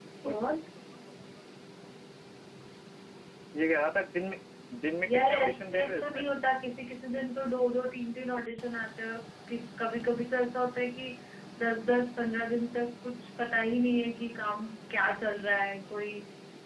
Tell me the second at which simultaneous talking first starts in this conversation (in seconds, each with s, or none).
5.1 s